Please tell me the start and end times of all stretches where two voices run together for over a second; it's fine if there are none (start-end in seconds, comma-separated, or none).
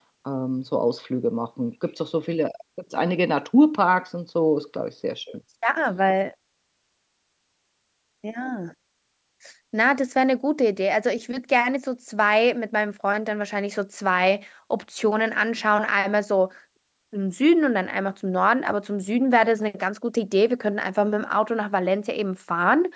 none